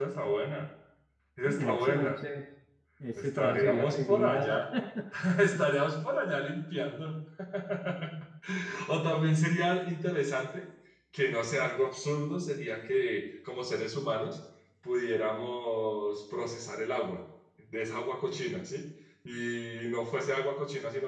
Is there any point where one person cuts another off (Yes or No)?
Yes